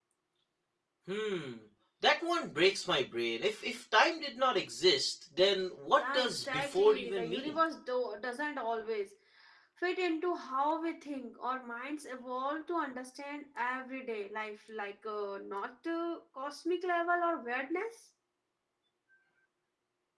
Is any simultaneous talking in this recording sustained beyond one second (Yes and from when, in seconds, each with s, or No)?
Yes, from 6.0 s